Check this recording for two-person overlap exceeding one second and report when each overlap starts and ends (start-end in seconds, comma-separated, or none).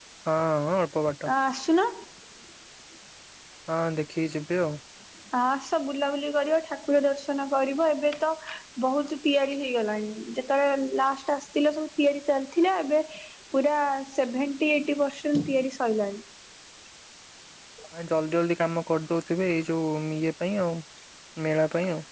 none